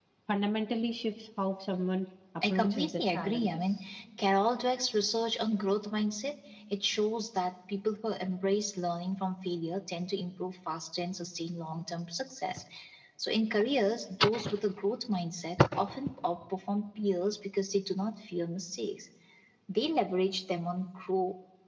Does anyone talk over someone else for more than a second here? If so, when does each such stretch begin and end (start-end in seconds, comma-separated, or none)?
2.5-3.8